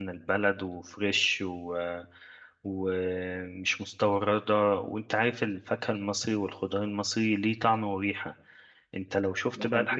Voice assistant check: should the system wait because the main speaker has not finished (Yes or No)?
Yes